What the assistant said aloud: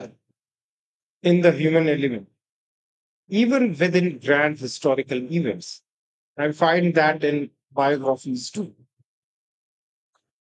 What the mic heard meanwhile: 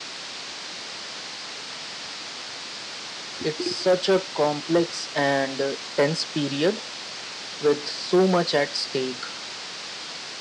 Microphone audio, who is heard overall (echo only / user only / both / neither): user only